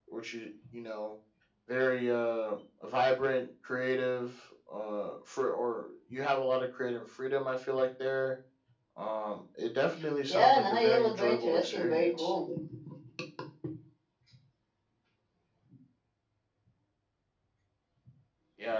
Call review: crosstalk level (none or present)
present